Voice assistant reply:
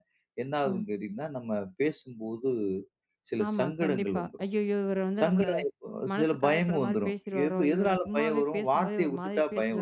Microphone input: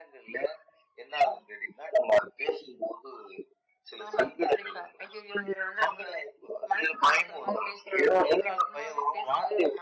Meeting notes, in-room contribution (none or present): none